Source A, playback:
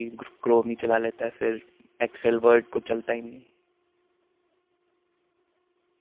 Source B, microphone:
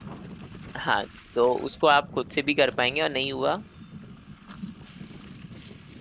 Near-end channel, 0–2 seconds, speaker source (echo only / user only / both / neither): user only